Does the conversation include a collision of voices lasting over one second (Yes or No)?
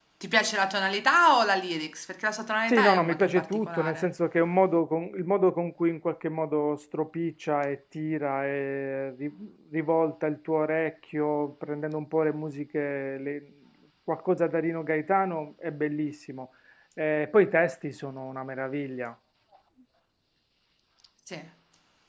Yes